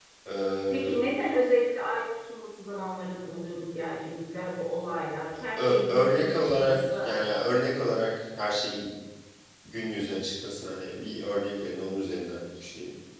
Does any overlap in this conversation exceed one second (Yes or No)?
Yes